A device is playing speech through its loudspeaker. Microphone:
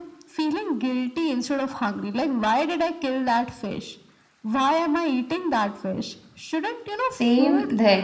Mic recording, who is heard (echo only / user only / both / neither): both